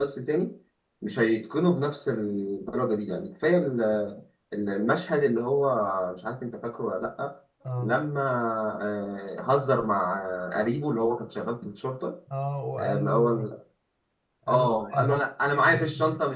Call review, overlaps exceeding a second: present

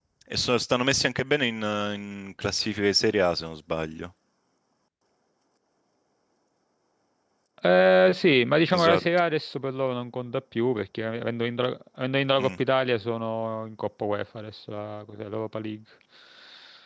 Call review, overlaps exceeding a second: none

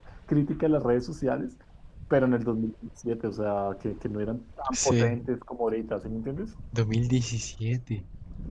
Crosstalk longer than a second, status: none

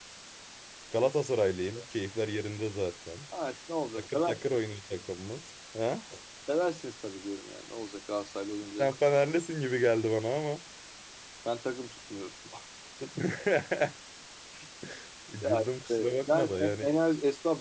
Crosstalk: present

